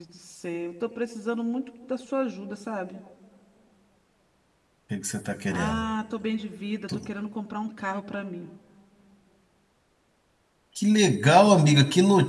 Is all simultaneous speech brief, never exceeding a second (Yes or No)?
Yes